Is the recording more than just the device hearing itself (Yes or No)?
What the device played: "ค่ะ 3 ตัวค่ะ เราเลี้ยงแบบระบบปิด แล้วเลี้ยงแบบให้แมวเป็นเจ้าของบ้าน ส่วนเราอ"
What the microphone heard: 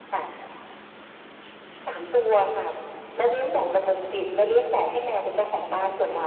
No